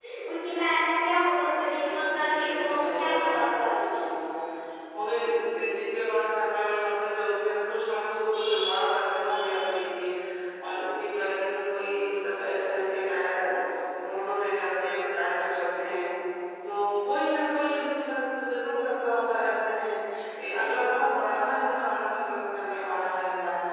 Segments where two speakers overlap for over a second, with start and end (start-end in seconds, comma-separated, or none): 1.8-3.8